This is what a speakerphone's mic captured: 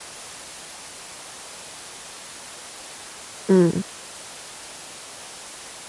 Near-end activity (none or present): present